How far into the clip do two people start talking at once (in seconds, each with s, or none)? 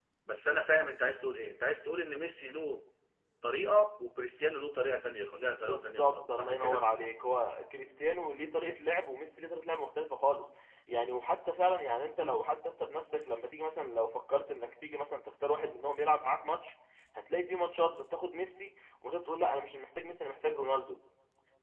5.6 s